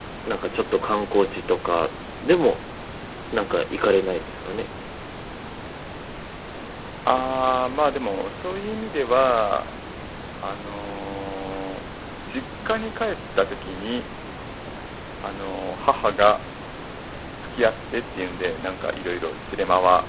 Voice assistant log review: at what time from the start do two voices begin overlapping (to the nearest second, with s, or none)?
none